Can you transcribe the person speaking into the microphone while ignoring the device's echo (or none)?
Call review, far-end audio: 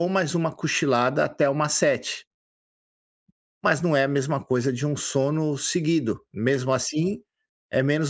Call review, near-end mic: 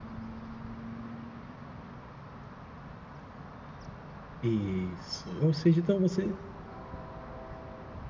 isso. Ou seja, então você